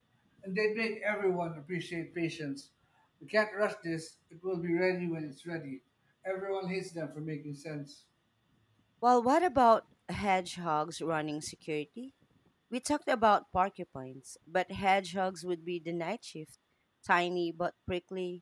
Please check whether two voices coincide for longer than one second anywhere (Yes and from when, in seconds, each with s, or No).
No